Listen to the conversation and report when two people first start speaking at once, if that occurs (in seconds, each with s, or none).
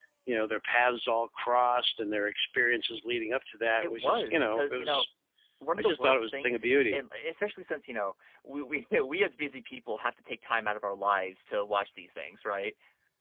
3.8 s